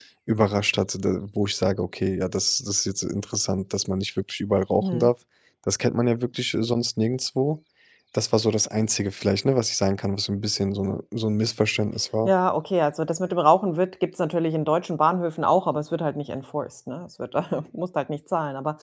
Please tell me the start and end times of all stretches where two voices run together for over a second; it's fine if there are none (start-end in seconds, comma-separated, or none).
none